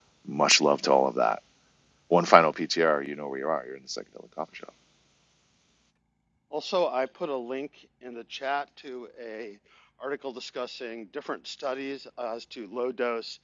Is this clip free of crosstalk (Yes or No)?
Yes